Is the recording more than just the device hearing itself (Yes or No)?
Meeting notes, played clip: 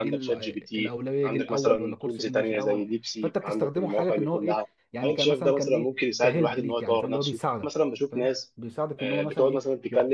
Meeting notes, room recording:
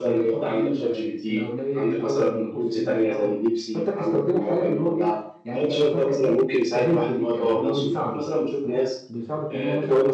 No